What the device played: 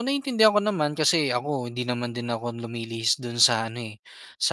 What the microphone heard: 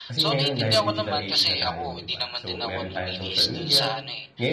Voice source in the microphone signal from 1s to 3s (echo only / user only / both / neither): both